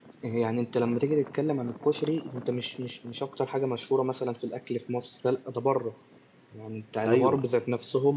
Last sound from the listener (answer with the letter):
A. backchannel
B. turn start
A